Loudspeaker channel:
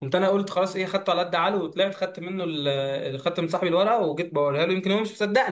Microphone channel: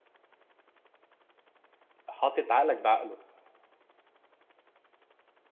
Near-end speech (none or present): present